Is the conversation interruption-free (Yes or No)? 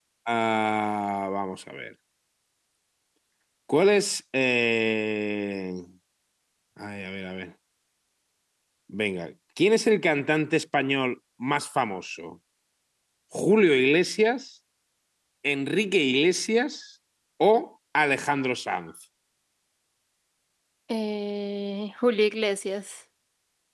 Yes